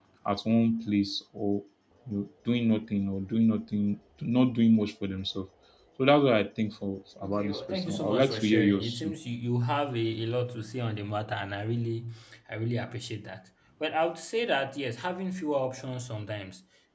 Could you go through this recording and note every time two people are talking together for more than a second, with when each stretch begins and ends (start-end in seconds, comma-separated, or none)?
7.2-9.1